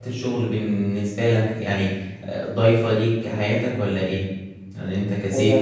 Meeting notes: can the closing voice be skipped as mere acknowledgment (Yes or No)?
No